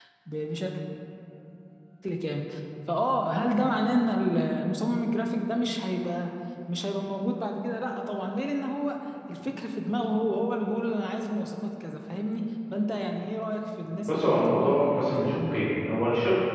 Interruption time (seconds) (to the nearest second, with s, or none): 14 s